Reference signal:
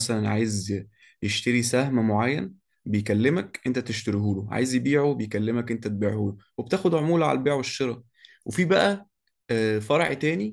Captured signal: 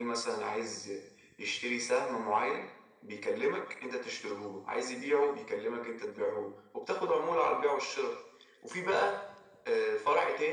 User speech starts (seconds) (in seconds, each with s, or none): none